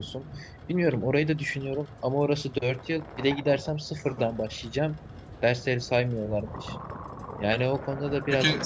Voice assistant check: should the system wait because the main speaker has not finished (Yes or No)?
No